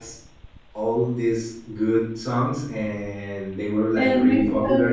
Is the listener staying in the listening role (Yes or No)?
Yes